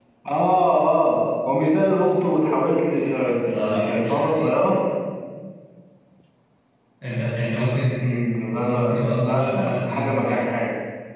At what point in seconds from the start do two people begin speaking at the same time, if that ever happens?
3.4 s

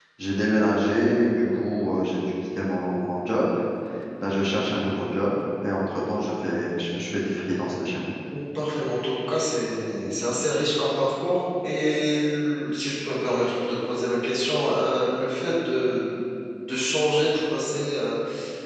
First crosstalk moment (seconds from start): none

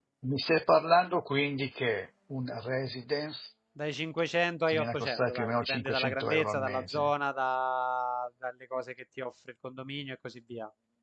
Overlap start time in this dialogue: 4.7 s

